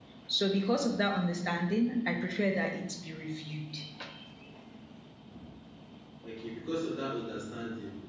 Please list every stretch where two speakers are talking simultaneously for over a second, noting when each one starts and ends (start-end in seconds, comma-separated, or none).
none